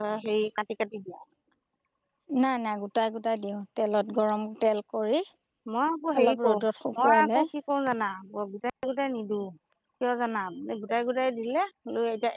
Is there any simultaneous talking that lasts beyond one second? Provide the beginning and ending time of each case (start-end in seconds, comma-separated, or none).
none